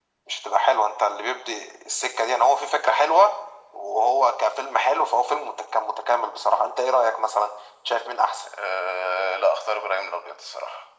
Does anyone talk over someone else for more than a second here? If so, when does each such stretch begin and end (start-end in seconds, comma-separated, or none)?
none